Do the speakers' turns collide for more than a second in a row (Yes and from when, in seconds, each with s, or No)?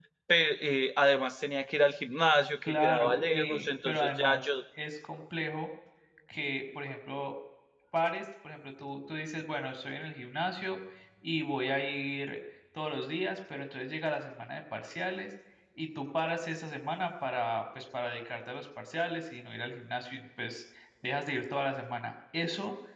Yes, from 2.7 s